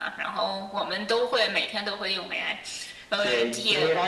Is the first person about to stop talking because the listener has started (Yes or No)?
Yes